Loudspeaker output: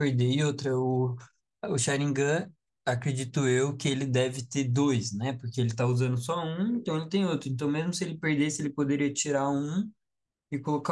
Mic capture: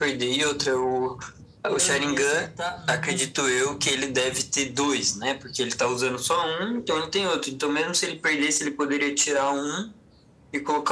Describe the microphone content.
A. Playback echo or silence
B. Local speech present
B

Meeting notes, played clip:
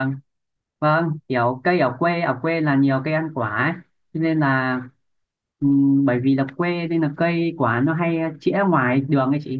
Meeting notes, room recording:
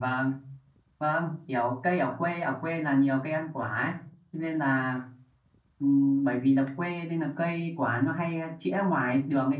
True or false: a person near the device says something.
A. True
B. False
B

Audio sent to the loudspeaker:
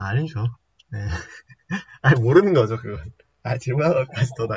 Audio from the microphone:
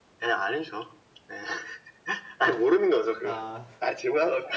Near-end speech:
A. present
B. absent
A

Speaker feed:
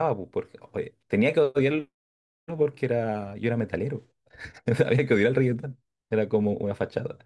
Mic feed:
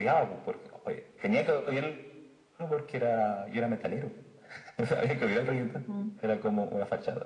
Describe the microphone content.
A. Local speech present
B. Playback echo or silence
A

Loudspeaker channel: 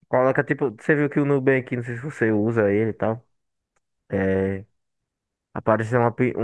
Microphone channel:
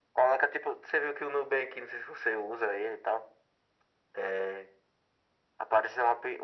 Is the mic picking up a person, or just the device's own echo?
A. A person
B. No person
B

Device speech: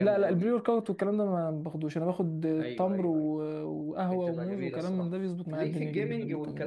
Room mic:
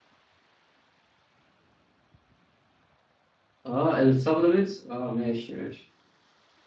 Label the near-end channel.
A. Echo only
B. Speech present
B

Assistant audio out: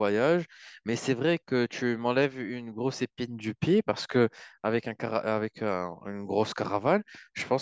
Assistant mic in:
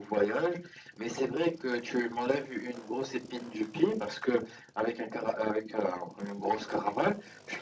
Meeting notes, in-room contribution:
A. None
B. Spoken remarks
A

